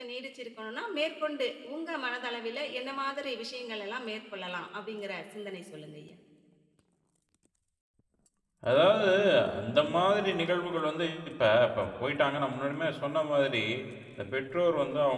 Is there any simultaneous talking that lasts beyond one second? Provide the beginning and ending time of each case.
none

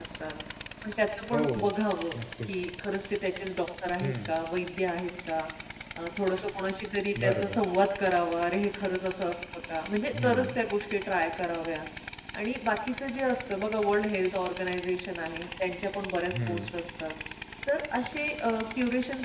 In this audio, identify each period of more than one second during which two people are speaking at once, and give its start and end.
none

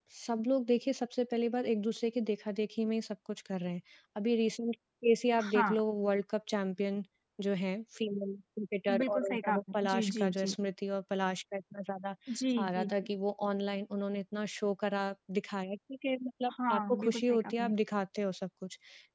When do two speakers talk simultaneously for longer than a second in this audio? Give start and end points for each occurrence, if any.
9.0-10.5, 16.5-17.7

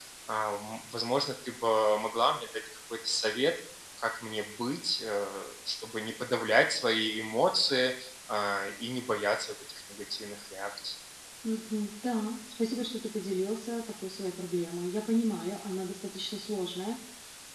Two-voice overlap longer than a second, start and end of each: none

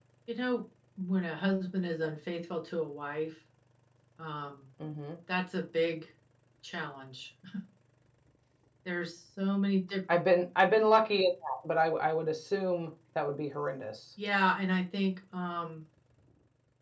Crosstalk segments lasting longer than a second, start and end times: none

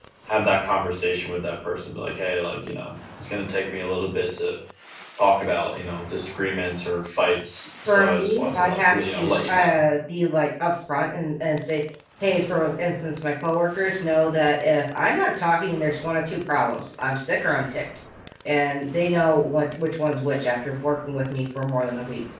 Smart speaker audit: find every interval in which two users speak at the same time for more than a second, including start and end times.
7.9-9.8

